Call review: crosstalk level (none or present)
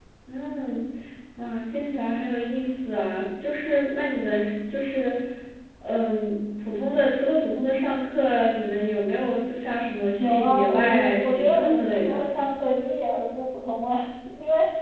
present